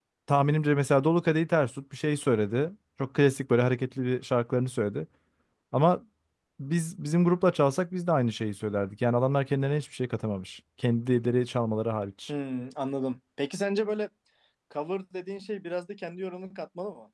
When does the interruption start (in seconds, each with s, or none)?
none